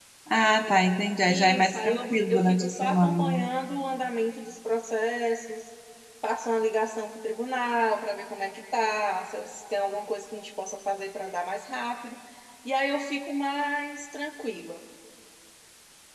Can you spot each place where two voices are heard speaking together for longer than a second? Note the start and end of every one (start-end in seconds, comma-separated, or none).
1.3-3.5